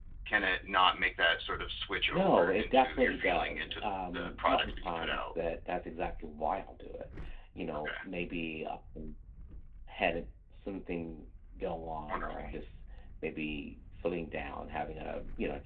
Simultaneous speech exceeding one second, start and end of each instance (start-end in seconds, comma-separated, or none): 2.1-5.3